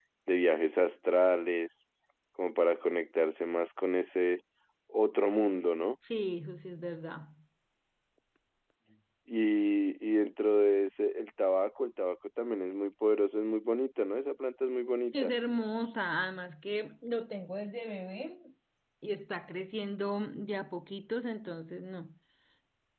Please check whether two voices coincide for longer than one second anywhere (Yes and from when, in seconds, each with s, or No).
No